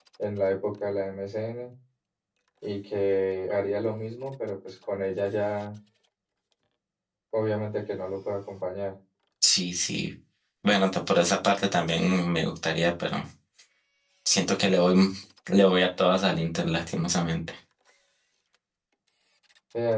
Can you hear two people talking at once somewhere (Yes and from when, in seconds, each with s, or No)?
No